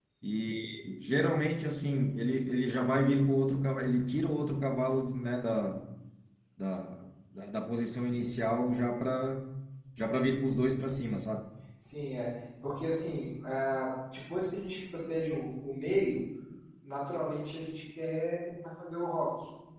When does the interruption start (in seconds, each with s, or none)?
none